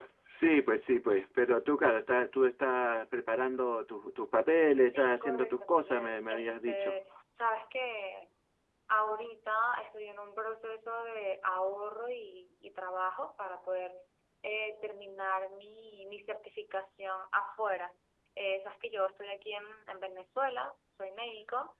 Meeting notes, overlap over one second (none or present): present